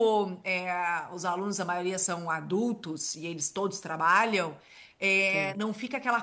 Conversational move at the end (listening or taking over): listening